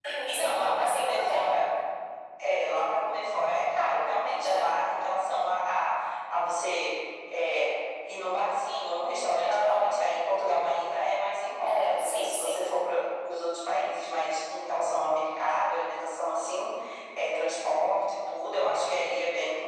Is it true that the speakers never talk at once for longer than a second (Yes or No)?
No